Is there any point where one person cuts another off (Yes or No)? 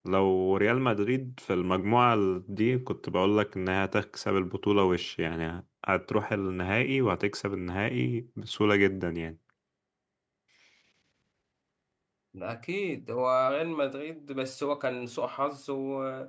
No